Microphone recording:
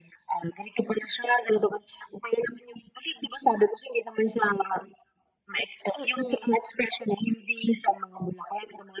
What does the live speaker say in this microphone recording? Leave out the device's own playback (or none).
Mm.